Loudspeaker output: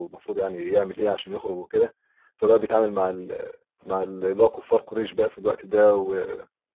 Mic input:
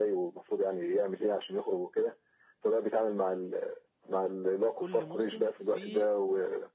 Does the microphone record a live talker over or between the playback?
Yes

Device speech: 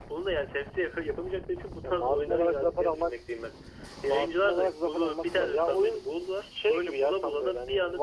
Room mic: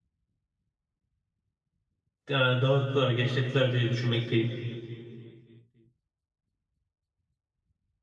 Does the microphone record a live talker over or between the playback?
Yes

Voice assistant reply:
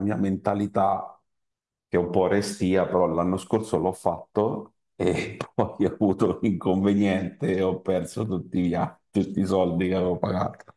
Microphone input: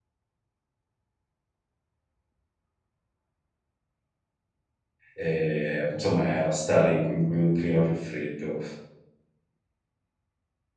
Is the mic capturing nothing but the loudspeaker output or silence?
No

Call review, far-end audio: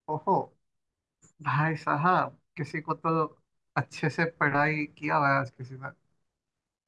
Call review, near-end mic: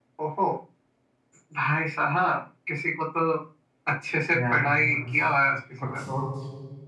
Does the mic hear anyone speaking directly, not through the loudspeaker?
Yes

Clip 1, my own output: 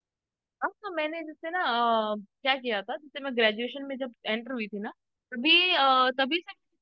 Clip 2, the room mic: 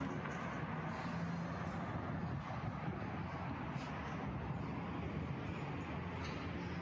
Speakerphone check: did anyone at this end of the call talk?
No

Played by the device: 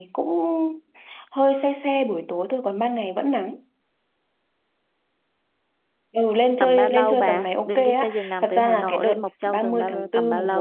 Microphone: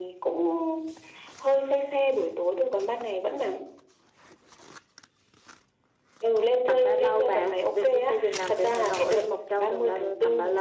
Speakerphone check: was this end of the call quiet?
Yes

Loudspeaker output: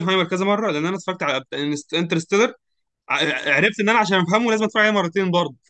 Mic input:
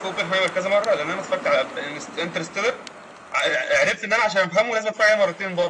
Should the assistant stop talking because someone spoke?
No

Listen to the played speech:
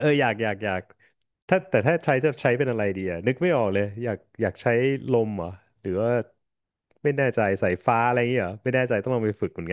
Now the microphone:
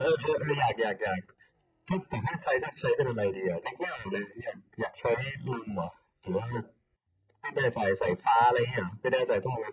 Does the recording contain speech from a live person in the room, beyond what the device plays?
No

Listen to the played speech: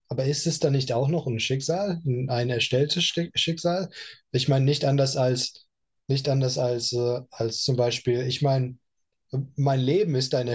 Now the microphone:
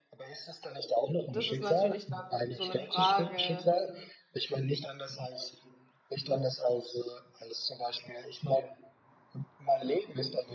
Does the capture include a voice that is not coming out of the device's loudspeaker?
Yes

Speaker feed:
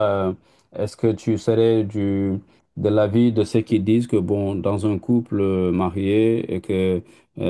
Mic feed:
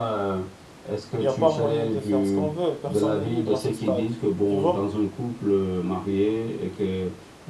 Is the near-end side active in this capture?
Yes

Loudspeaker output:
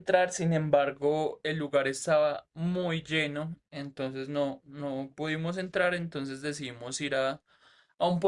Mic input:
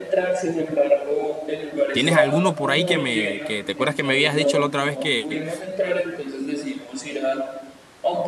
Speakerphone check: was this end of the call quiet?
No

